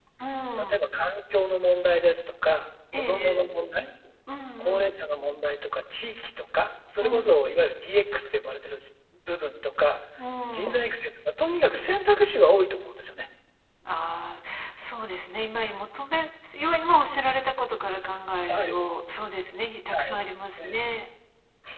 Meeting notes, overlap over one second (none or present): none